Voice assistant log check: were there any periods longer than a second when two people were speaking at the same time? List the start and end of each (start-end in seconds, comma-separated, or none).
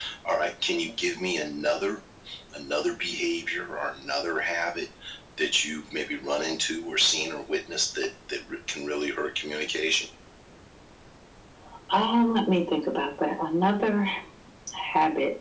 none